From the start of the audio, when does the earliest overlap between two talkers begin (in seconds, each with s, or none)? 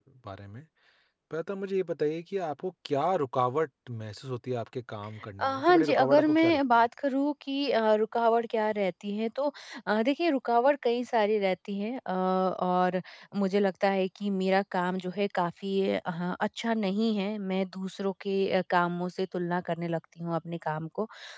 5.4 s